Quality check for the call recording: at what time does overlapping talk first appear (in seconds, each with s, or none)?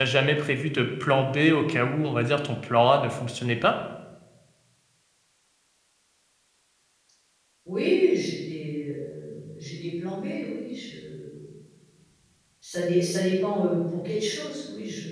none